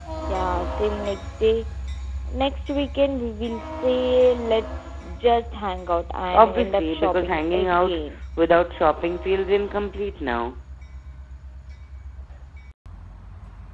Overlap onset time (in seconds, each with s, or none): 6.3 s